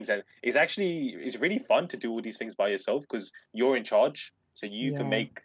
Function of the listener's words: listening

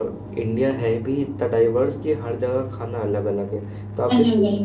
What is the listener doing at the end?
listening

